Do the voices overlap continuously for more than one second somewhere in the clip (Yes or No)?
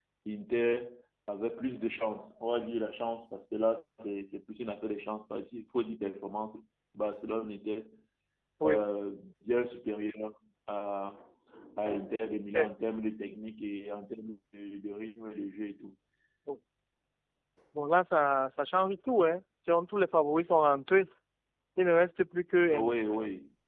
No